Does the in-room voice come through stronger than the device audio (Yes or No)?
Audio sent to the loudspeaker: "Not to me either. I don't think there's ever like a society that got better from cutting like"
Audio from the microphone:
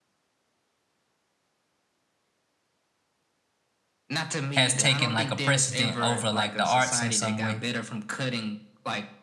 Yes